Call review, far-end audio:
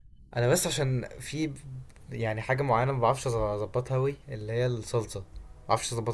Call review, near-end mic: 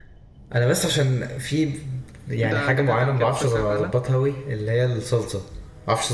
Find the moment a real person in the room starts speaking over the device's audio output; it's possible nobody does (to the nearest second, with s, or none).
2 s